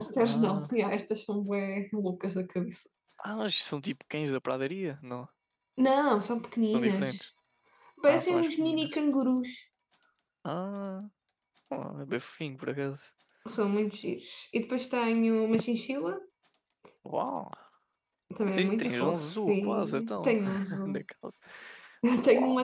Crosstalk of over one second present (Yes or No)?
Yes